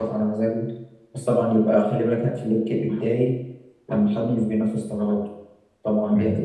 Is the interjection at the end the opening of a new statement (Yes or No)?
No